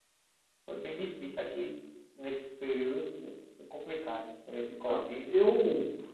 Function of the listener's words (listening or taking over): taking over